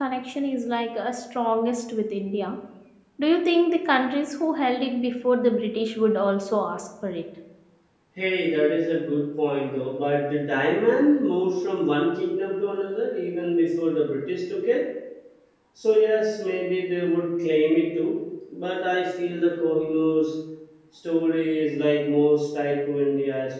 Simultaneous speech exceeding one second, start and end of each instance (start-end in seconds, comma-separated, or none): none